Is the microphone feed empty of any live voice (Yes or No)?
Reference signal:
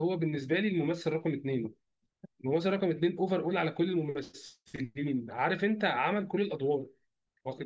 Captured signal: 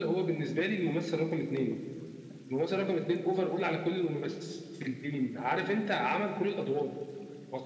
Yes